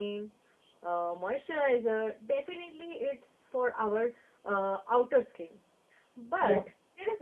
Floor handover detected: No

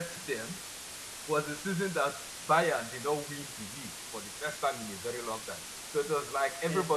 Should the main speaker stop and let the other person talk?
No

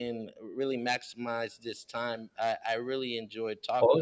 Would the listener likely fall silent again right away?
No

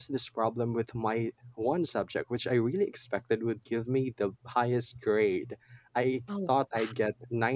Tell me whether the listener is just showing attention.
Yes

